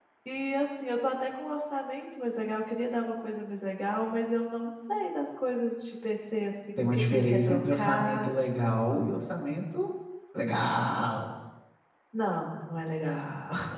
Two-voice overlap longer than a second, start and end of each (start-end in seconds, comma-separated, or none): 6.8-8.3